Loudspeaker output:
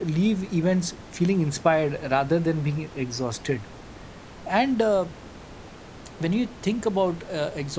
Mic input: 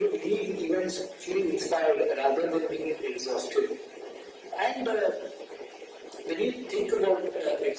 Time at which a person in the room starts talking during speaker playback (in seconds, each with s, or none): none